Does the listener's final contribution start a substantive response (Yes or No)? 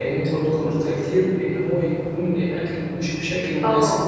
Yes